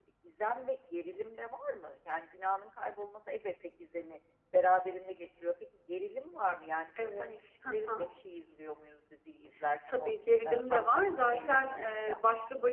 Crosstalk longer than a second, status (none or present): present